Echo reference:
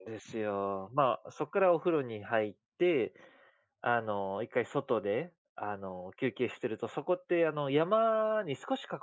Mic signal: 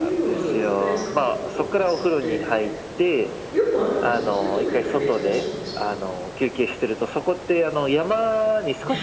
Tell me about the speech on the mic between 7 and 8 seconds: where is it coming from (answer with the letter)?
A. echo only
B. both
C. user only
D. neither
A